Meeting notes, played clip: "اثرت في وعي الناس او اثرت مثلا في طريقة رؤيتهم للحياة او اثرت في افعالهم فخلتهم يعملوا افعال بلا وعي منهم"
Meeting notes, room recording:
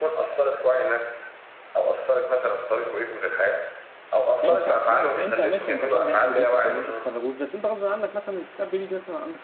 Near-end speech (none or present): present